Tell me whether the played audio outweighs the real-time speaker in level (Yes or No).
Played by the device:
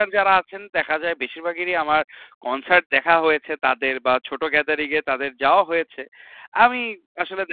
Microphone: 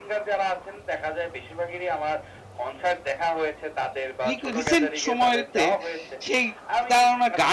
No